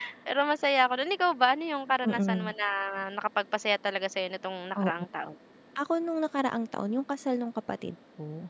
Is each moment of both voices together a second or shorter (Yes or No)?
Yes